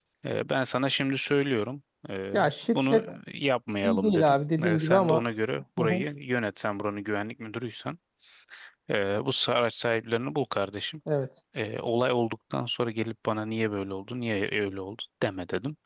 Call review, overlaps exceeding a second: present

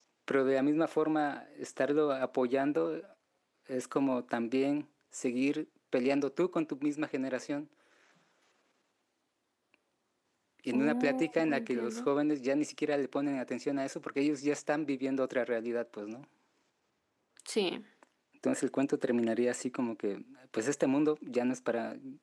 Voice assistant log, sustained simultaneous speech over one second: present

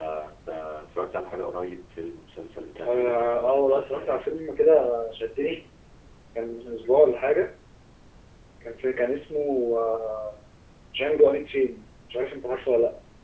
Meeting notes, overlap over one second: present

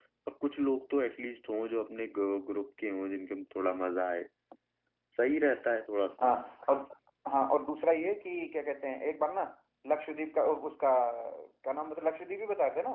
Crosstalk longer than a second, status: none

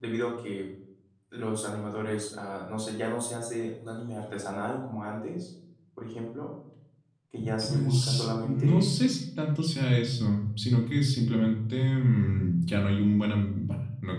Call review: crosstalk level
present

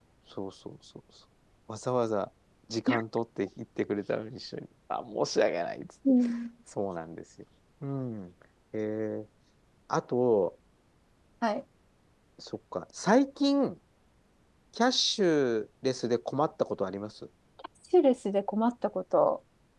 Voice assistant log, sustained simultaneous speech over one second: none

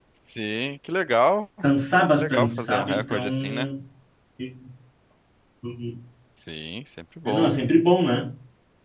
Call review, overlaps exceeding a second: present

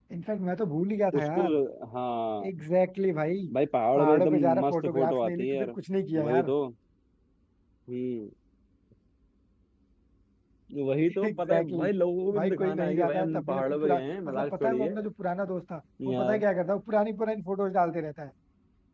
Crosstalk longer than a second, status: present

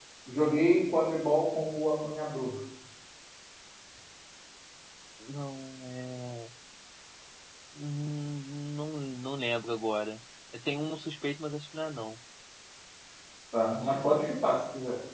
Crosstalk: none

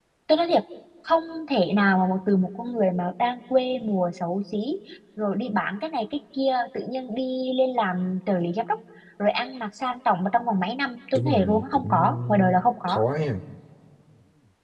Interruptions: present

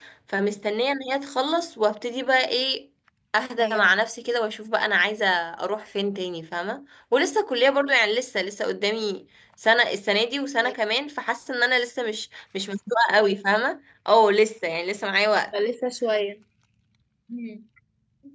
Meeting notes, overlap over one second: none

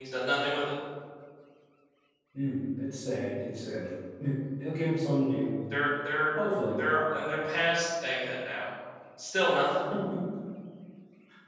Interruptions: none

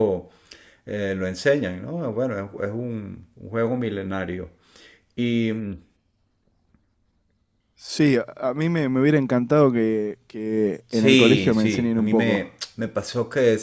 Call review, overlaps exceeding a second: present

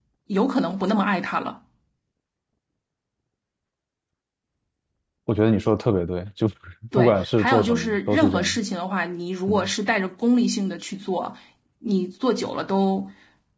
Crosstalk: present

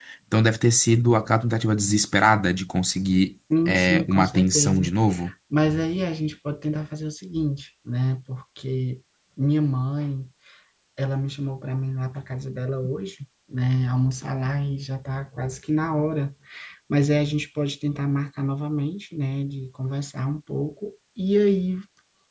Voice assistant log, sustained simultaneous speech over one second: present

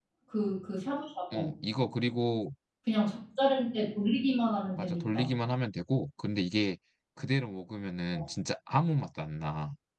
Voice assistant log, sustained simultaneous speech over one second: none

